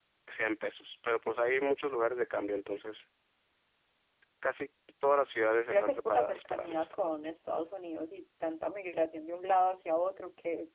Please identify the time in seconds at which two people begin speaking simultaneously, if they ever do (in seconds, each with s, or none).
5.7 s